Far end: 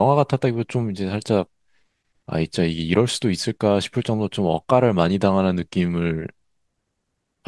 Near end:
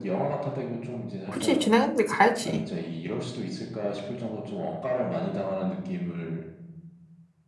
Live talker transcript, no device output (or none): 그치. 진행했는데 가야지.